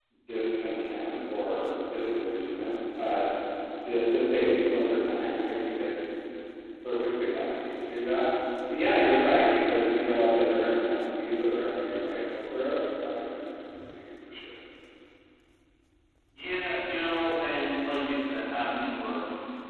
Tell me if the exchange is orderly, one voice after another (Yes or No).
Yes